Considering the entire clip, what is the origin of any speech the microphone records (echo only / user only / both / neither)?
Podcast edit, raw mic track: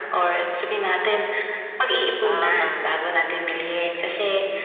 both